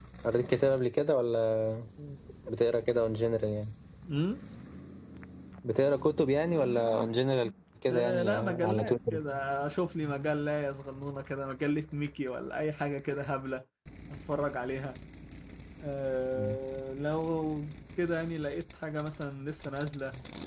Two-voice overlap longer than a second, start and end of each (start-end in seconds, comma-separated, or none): 7.9-9.2